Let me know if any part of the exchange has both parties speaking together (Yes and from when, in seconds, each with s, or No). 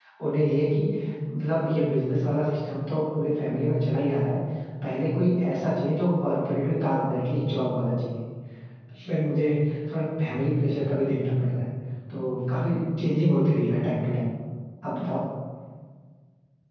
No